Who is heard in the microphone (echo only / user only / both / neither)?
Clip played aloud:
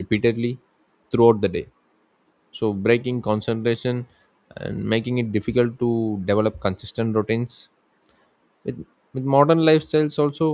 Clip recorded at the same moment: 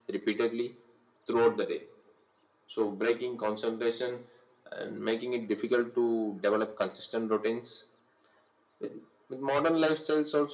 echo only